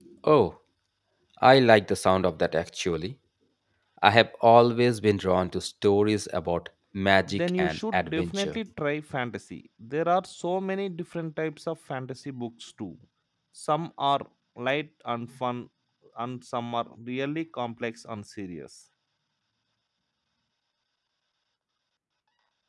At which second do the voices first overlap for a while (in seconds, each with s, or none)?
7.3 s